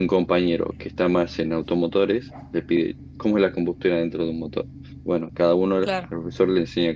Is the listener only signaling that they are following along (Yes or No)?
Yes